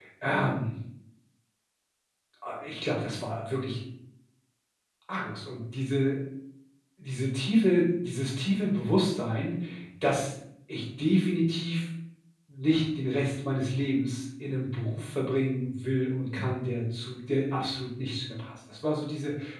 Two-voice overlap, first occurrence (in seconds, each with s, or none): none